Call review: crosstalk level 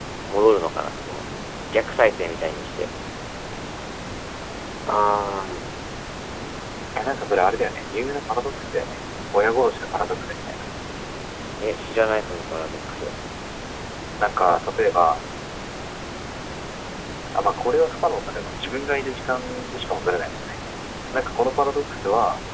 none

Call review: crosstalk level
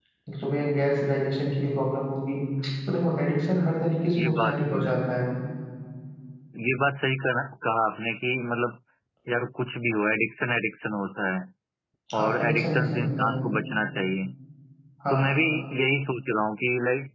present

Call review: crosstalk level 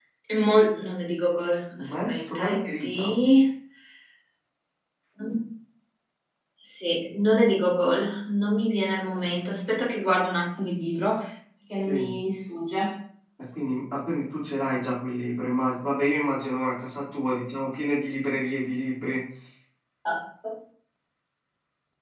present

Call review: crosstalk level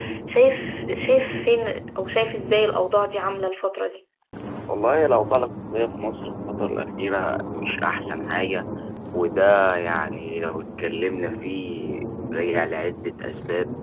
none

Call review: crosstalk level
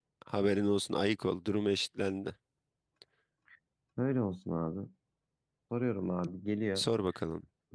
none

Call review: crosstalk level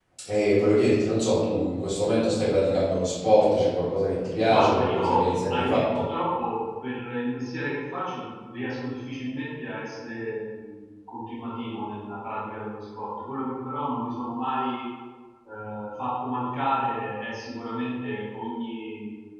present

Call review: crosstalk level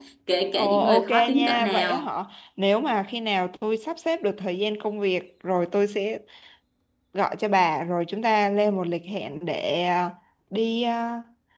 present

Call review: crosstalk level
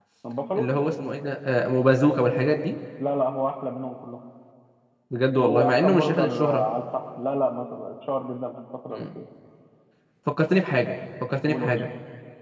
present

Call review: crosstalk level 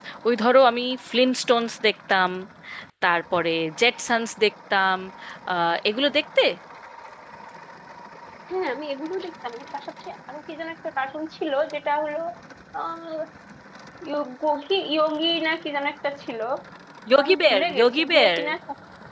present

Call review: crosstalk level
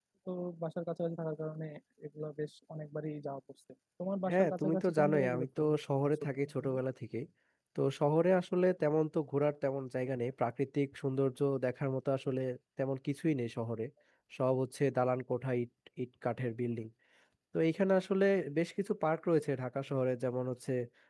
present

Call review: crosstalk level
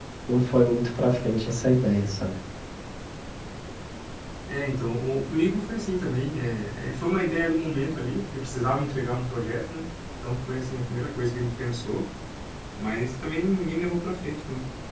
none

